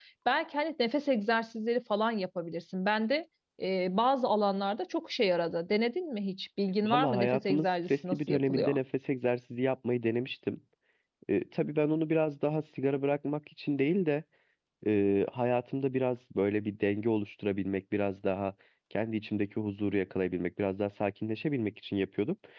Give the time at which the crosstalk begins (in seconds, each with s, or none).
6.8 s